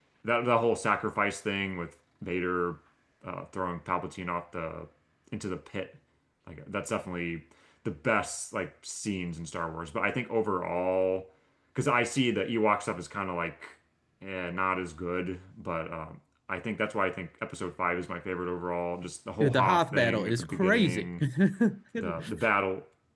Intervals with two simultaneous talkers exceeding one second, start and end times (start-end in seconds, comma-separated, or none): 19.4-21.1